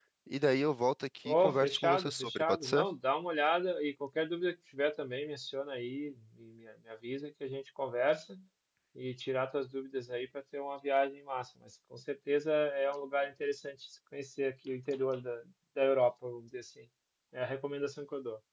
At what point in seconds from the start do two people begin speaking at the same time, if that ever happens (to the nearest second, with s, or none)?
1 s